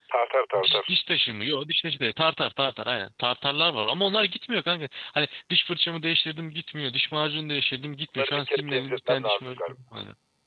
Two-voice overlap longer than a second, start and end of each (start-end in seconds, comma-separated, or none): 8.2-9.7